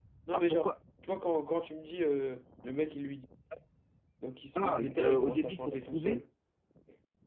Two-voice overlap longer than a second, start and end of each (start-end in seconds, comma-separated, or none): 4.5-6.2